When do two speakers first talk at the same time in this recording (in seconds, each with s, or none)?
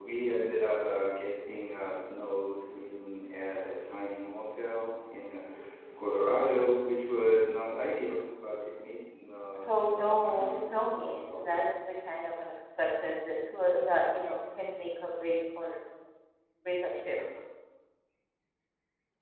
9.6 s